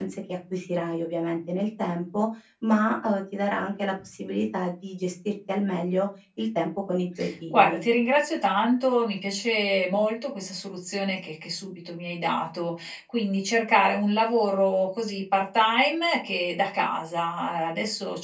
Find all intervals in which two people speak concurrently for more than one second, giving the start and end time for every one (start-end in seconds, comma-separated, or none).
none